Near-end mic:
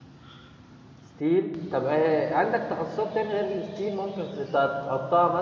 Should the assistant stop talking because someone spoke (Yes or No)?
Yes